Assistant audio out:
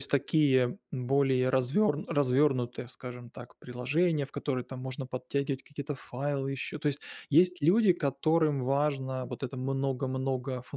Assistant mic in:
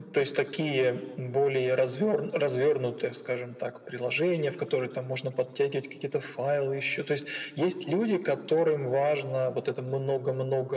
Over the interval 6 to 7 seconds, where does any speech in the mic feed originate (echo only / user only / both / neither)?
echo only